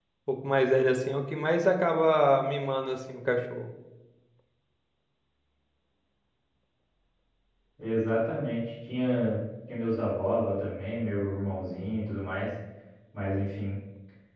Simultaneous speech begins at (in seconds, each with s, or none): none